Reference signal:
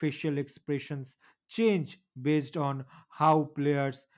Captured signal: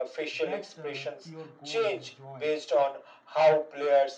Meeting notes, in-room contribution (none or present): present